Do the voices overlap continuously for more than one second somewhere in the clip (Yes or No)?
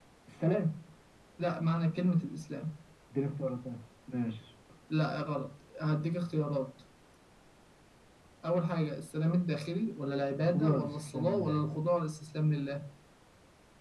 Yes